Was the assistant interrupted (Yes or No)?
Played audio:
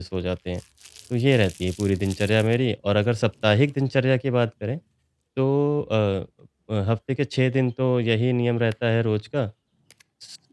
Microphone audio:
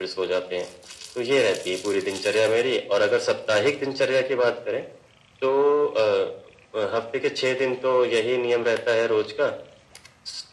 No